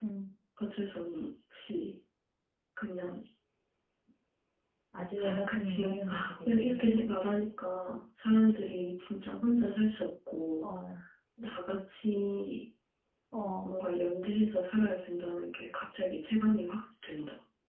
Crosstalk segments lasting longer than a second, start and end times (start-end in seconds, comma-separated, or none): 5.2-6.8